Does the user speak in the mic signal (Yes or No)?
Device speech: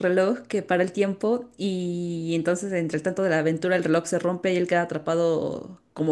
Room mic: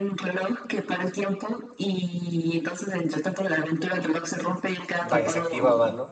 Yes